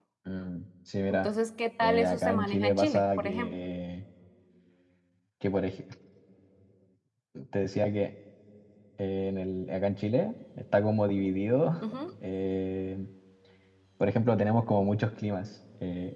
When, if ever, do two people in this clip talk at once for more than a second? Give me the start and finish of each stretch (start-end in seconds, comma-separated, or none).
1.8-3.5